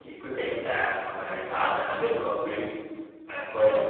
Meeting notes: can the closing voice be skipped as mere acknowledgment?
Yes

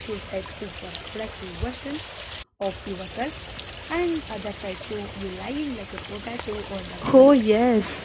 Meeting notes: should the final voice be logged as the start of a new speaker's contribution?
Yes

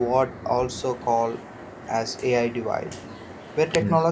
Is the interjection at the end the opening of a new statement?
No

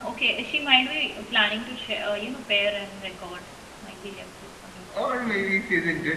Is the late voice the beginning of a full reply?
Yes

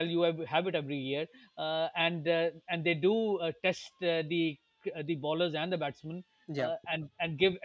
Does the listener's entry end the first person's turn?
No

